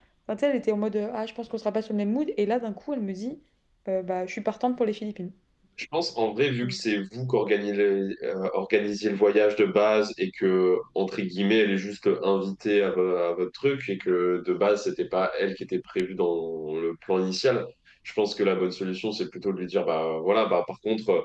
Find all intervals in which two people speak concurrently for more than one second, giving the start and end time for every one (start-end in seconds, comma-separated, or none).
none